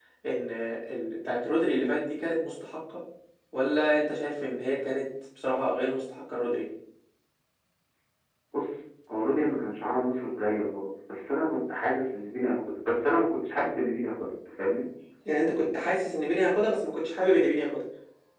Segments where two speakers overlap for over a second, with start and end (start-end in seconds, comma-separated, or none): none